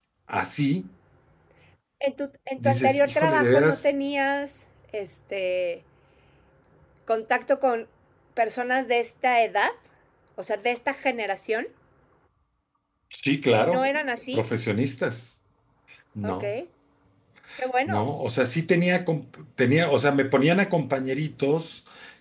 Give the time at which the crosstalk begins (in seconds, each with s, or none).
2.6 s